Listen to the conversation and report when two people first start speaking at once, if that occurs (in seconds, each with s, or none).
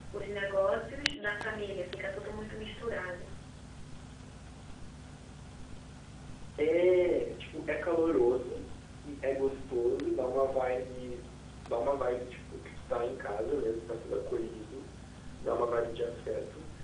none